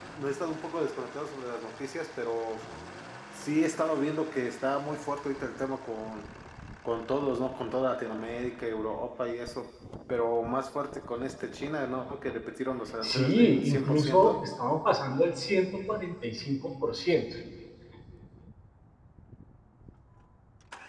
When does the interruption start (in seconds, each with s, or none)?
13.0 s